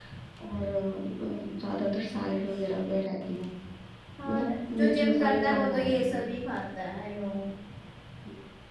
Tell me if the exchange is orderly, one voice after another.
No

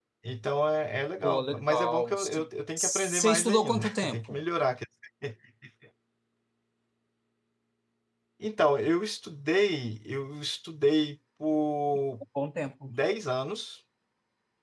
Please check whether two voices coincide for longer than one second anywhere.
Yes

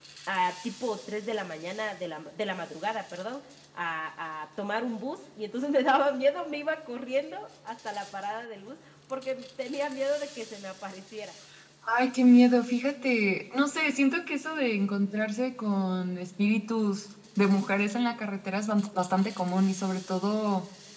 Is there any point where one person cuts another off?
No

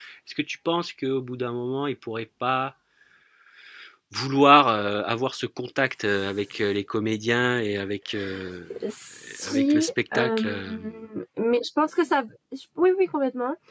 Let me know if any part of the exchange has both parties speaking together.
Yes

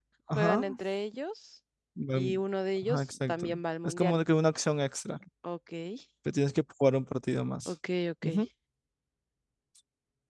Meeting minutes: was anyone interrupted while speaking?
Yes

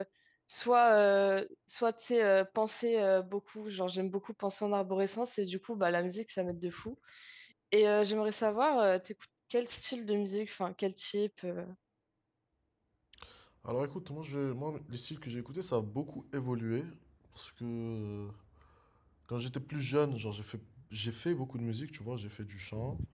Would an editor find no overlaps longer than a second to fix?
Yes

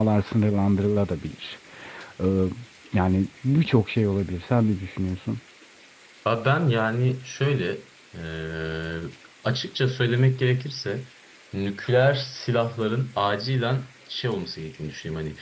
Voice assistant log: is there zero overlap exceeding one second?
Yes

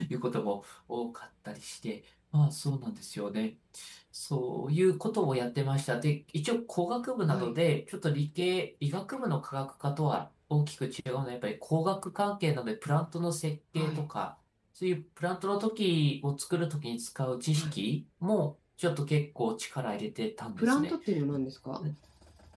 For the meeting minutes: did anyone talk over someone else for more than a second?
No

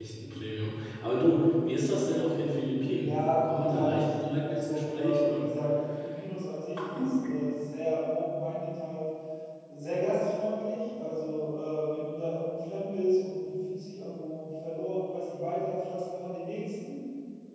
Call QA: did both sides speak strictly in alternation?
No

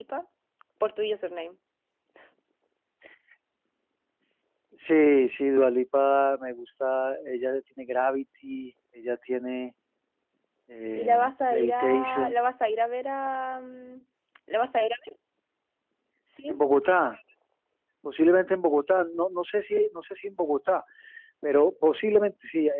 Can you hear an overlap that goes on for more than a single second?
Yes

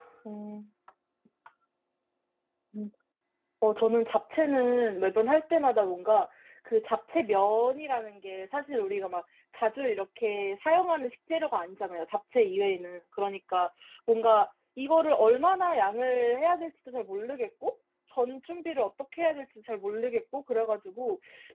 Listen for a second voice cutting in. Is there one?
No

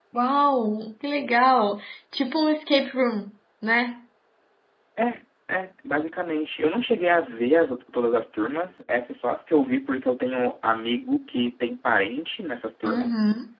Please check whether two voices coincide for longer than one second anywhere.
No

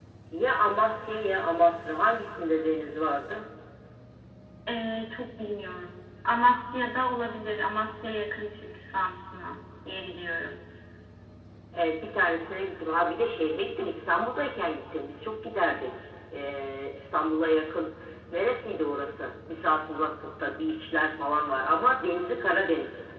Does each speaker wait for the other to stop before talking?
Yes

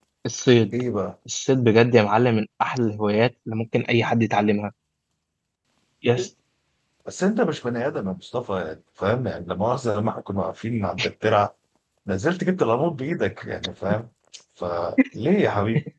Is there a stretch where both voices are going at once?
No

